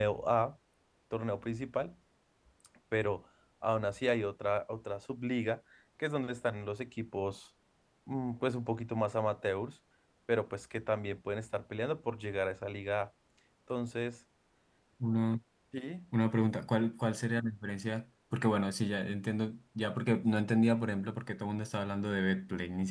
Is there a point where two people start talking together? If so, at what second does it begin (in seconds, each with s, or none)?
none